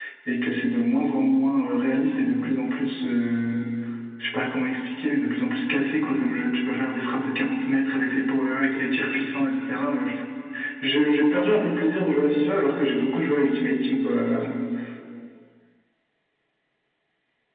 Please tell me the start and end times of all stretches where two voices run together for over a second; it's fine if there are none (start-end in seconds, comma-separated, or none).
none